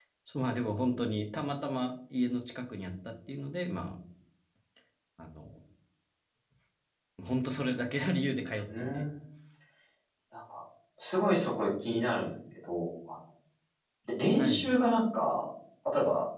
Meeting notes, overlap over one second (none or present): none